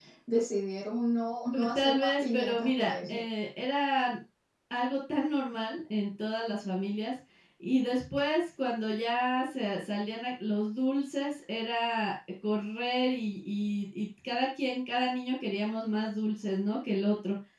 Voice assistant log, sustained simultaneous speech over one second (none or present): present